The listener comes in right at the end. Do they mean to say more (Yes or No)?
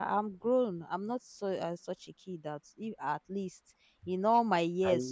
No